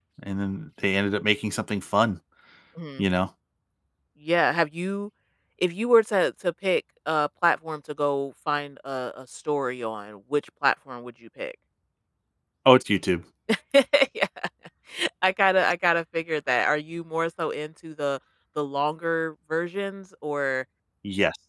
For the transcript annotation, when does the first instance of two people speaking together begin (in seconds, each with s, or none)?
none